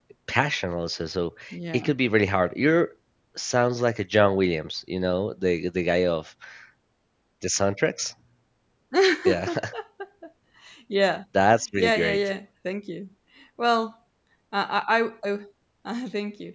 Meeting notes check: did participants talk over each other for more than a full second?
No

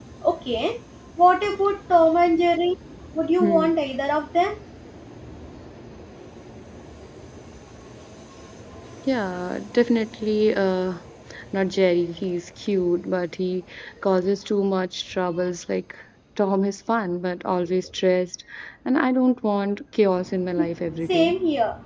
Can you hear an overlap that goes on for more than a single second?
No

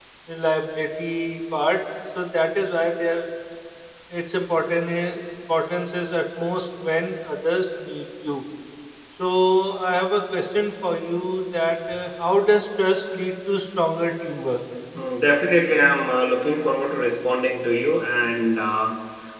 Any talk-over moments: No

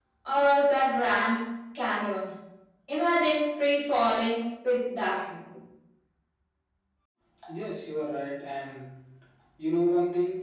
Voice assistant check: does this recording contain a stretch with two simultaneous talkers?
No

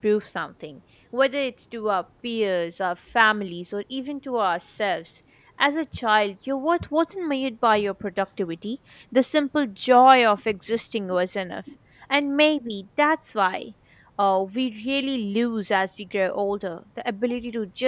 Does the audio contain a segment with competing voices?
No

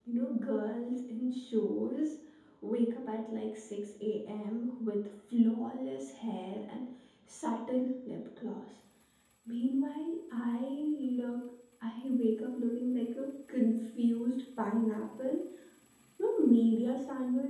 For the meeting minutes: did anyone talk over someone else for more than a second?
No

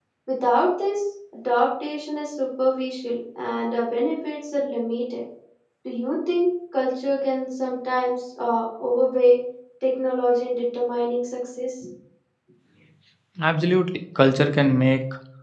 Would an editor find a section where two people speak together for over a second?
No

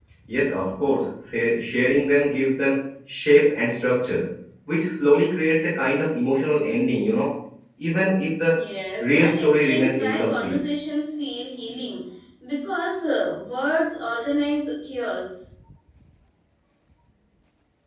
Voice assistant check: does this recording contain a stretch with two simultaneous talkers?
Yes, from 9.0 s

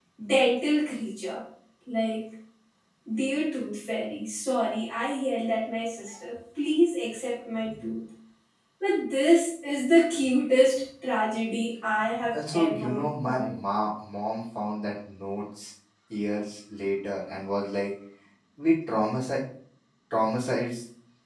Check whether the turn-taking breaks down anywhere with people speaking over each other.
Yes, from 12.3 s

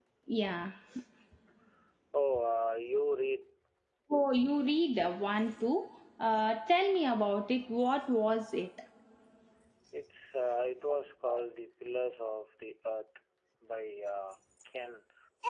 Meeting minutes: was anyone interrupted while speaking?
No

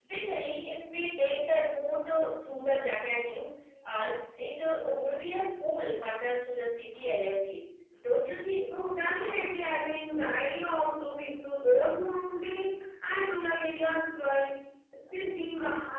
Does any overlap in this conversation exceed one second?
No

